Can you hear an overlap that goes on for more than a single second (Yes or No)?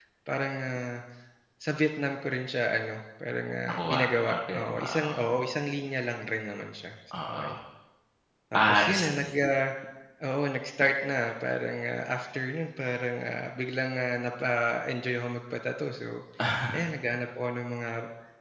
Yes